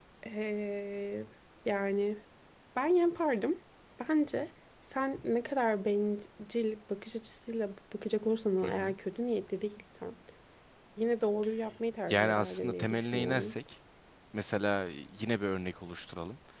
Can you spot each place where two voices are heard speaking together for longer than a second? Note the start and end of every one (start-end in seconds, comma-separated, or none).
12.1-13.6